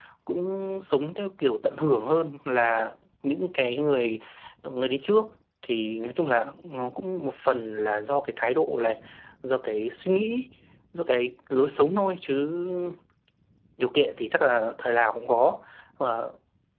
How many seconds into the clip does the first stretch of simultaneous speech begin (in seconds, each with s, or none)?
none